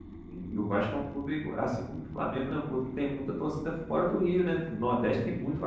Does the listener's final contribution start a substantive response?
Yes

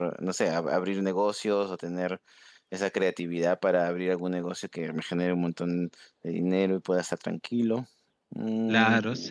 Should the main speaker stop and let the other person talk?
Yes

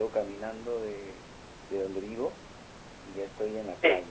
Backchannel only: Yes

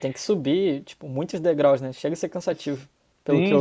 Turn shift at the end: Yes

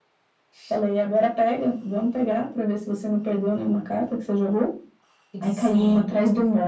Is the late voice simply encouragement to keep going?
Yes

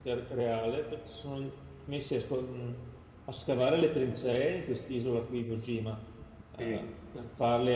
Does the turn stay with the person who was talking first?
Yes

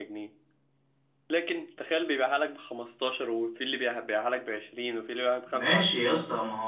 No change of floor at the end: No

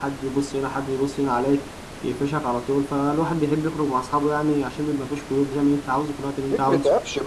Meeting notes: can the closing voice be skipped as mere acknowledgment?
No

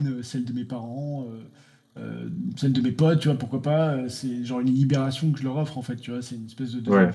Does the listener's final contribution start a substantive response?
No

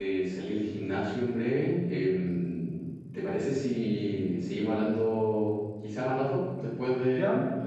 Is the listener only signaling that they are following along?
No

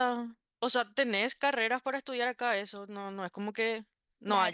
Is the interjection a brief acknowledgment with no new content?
No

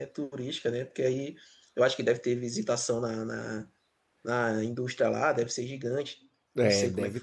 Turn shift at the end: Yes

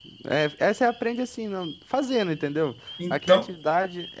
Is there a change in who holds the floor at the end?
No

